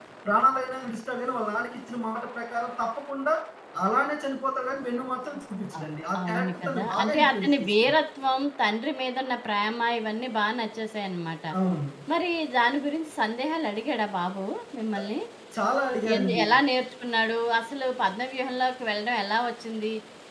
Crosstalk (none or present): present